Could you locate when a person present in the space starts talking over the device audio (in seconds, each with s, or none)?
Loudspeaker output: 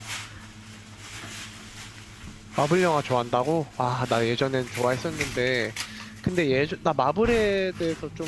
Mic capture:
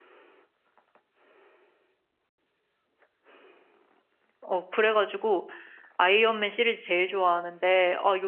4.4 s